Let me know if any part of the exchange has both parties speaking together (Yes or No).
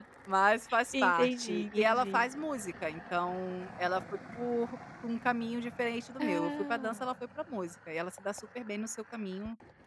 Yes